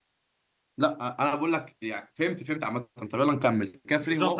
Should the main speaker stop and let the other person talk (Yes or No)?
Yes